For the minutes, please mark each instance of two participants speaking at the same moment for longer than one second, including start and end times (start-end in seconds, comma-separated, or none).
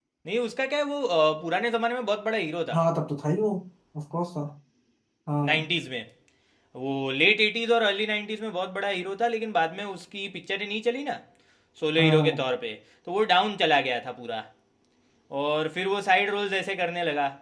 none